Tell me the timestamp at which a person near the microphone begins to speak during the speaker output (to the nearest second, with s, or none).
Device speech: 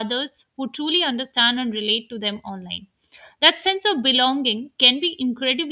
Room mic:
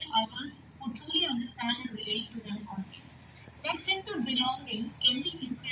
none